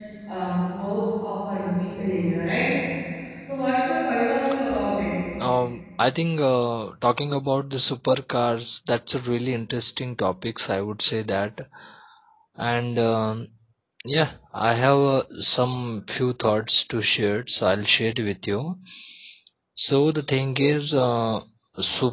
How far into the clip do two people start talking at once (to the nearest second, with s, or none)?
none